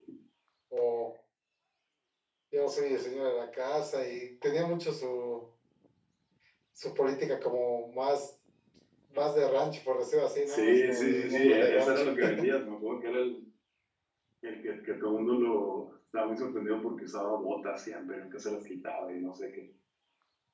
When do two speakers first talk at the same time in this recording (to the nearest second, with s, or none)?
10 s